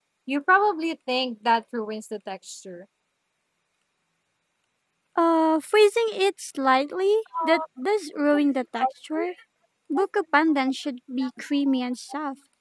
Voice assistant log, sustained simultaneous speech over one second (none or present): none